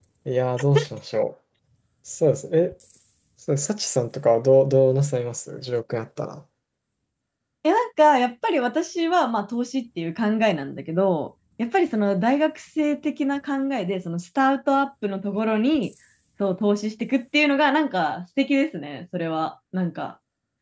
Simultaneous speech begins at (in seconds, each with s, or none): none